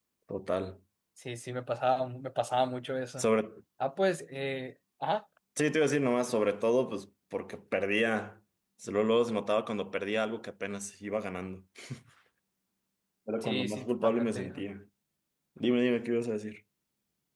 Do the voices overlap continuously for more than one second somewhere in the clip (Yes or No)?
Yes